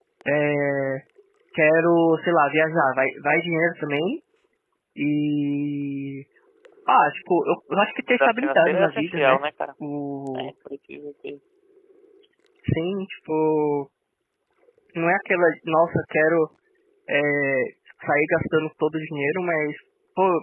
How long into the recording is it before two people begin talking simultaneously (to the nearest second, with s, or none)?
8 s